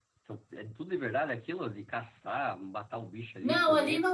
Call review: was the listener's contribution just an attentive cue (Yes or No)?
No